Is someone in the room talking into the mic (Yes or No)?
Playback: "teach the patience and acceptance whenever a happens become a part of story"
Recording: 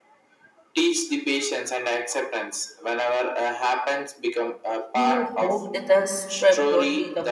Yes